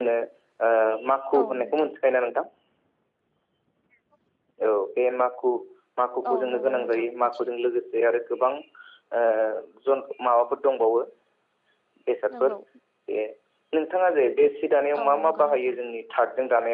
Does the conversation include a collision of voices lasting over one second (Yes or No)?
Yes